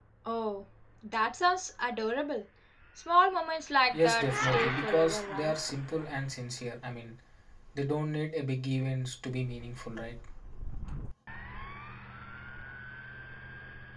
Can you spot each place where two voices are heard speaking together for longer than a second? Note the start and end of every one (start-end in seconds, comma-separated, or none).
3.9-5.5